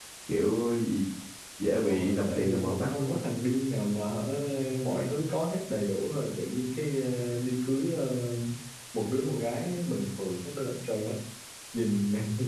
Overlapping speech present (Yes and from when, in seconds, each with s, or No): Yes, from 1.8 s